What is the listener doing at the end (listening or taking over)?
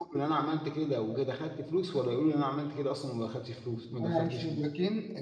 taking over